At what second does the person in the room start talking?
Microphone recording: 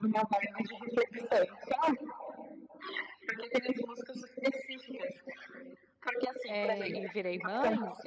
6.5 s

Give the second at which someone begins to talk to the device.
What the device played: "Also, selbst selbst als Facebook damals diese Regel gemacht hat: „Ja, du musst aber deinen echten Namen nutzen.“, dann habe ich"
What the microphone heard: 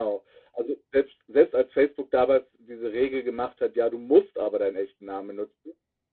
none

